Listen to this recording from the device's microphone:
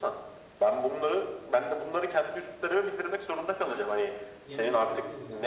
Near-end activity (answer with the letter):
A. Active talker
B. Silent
A